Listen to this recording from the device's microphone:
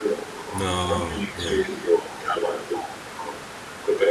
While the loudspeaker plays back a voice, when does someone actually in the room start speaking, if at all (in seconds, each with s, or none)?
0.6 s